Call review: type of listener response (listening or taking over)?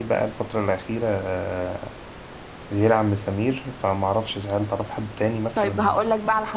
taking over